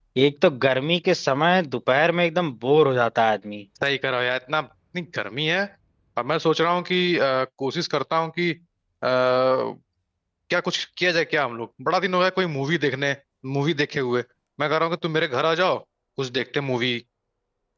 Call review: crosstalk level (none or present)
none